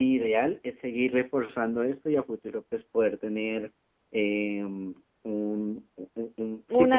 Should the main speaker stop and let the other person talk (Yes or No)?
Yes